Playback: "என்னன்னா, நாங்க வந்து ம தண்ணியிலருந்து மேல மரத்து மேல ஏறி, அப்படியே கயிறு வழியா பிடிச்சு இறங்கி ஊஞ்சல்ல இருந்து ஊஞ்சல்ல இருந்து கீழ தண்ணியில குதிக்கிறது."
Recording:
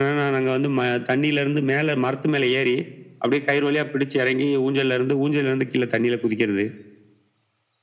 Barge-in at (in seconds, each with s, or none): none